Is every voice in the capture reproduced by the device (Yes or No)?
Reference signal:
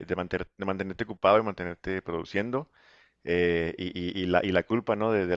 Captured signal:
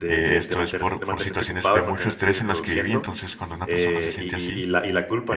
No